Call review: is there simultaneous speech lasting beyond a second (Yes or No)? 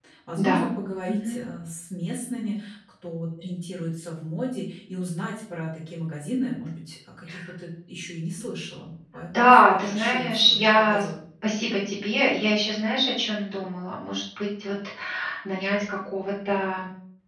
Yes